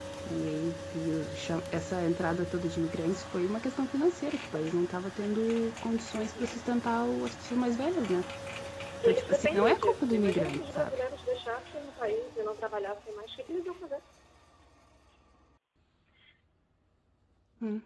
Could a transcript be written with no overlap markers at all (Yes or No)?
No